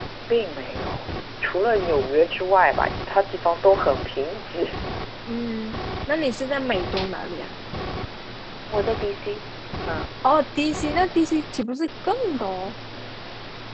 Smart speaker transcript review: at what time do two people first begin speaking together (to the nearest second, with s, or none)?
none